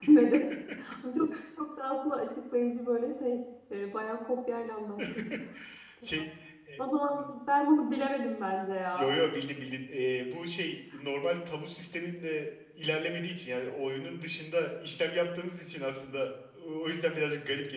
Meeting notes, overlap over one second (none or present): none